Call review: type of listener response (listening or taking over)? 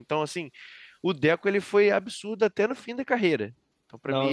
taking over